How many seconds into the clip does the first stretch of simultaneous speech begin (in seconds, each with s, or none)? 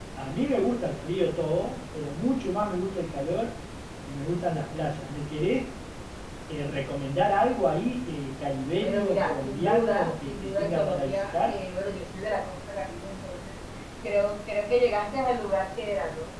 8.8 s